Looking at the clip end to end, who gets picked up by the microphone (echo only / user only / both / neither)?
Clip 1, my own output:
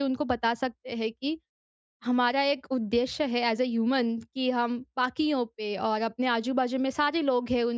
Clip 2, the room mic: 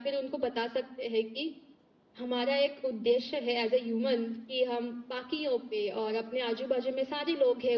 echo only